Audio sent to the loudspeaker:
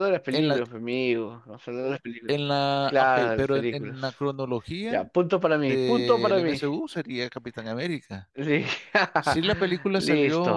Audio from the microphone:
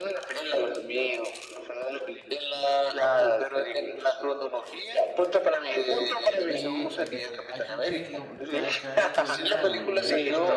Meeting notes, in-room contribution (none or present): present